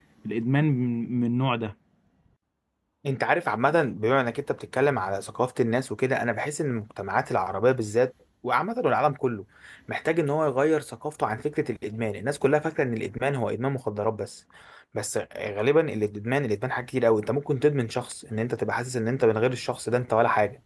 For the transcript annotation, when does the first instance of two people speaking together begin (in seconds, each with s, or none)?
none